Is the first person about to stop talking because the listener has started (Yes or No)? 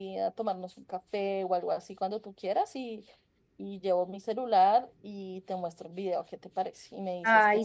Yes